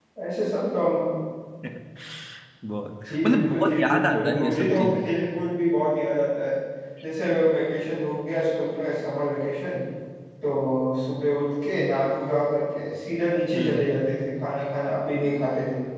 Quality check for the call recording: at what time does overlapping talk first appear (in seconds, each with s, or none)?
3.1 s